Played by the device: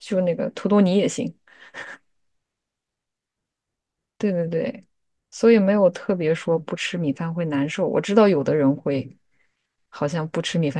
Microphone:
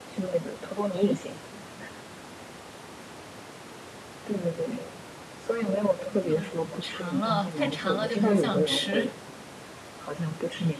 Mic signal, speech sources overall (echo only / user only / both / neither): both